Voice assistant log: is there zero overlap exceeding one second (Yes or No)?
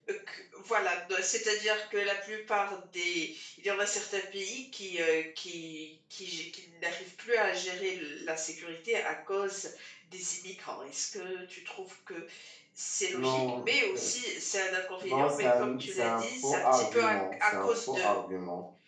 No